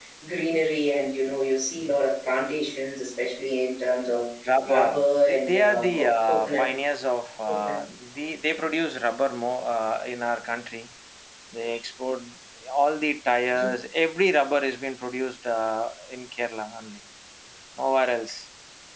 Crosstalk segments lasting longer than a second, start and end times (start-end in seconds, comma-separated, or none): 4.7-6.7